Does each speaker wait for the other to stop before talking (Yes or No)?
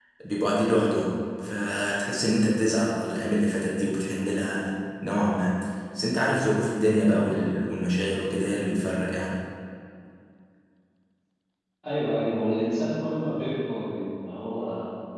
Yes